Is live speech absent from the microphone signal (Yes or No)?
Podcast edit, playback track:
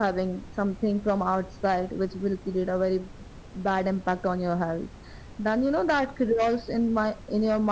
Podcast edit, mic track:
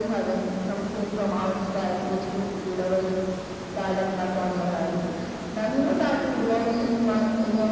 Yes